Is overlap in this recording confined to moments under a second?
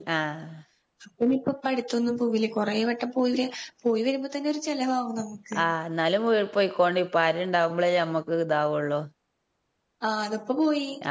Yes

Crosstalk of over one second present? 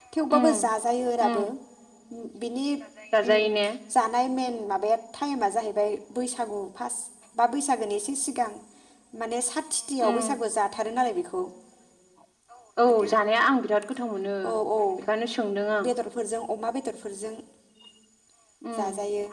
No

